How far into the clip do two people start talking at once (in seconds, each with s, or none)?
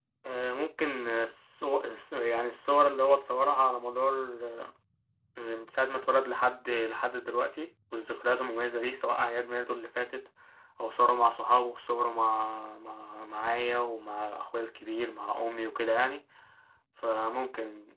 none